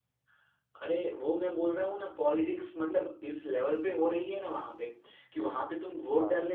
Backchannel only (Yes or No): Yes